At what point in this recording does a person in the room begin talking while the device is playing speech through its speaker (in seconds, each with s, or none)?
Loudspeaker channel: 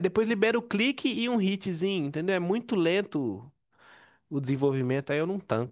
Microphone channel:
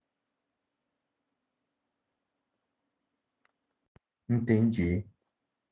4.3 s